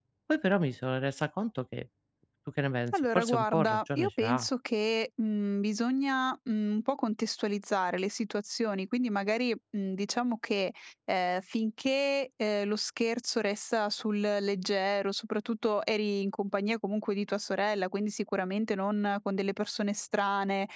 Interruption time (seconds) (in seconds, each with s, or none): 2.9 s